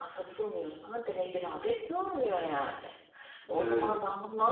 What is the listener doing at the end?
listening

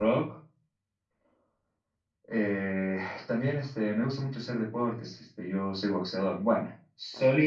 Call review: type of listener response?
listening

